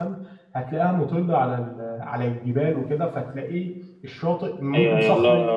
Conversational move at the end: taking over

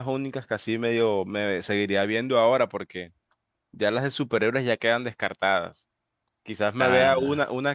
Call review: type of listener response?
listening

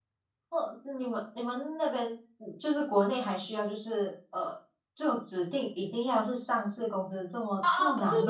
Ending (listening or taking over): taking over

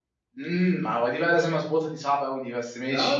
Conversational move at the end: taking over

